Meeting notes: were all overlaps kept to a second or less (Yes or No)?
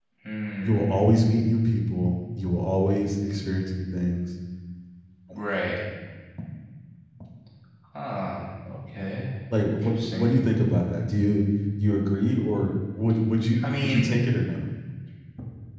Yes